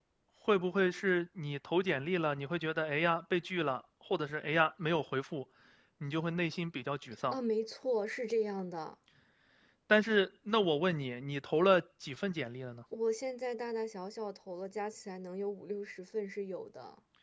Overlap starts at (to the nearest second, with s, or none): none